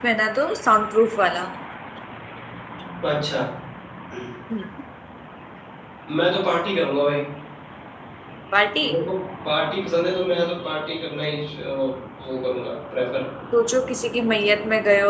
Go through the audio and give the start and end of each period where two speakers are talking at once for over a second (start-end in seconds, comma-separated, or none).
none